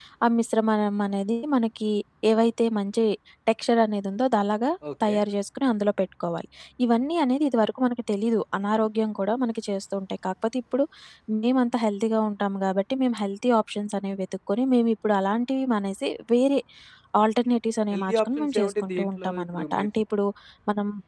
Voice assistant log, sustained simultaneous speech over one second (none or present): present